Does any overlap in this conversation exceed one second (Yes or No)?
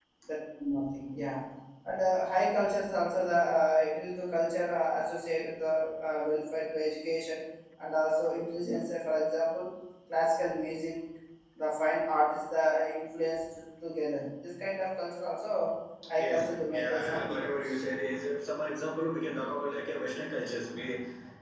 Yes